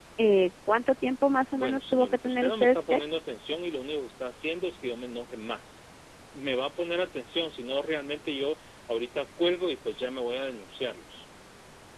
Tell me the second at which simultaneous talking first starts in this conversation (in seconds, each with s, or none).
1.5 s